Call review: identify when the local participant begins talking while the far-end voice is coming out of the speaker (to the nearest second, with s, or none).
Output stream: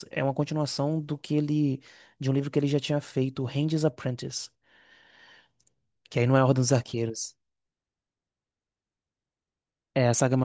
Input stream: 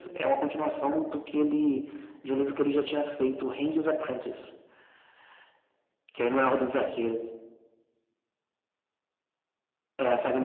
none